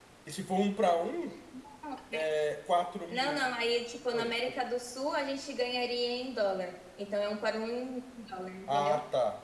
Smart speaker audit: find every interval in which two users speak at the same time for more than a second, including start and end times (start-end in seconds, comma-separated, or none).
none